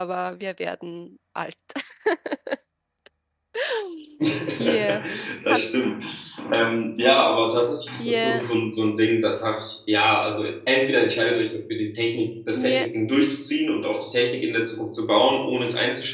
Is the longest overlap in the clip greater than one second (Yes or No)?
No